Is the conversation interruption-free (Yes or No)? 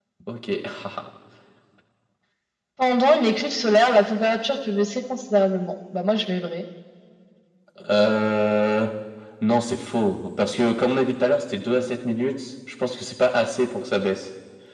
Yes